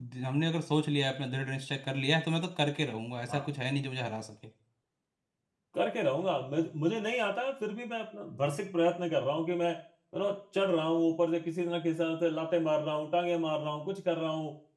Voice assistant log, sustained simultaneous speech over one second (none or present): none